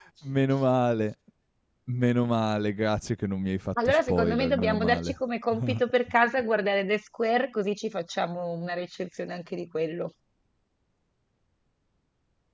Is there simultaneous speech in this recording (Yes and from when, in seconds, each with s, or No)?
Yes, from 3.8 s